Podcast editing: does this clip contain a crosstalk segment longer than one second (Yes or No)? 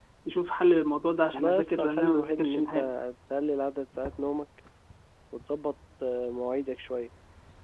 Yes